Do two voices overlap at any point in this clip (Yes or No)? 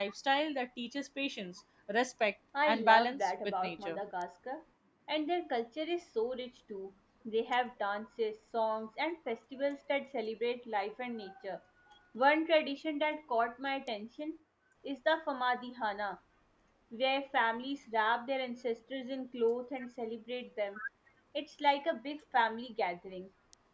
Yes